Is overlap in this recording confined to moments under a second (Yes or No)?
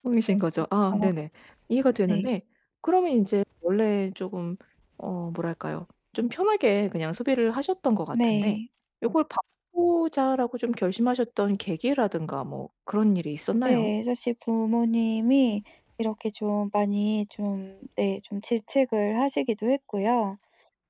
Yes